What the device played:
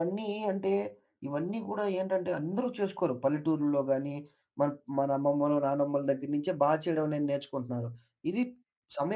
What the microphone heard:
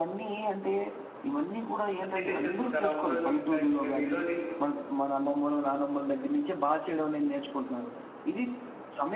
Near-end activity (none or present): present